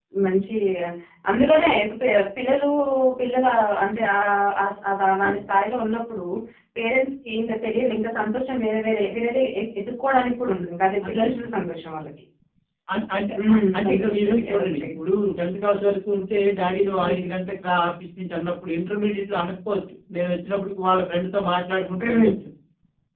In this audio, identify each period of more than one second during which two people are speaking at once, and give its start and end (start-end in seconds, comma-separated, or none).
13.5-14.9